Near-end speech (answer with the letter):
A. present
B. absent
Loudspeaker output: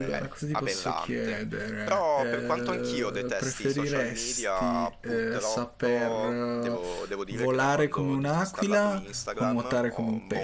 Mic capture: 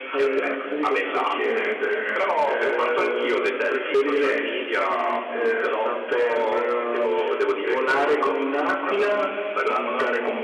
B